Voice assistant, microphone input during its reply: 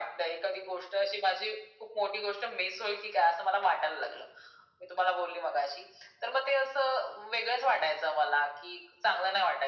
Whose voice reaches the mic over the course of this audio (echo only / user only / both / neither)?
echo only